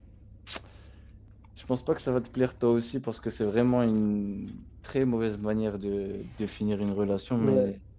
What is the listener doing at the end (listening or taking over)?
taking over